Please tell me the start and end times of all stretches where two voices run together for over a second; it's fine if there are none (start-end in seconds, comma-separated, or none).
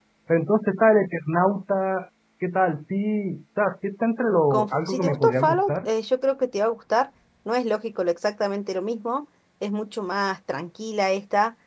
4.5-5.8